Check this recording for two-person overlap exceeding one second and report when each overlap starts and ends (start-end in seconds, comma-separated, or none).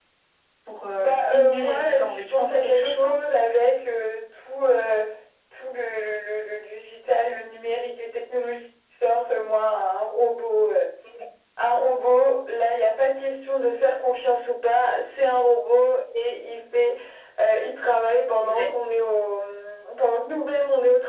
1.0-3.2